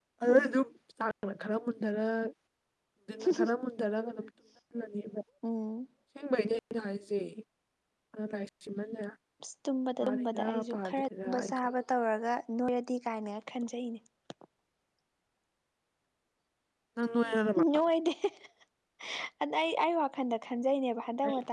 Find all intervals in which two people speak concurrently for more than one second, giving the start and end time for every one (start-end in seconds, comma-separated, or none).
10.0-11.7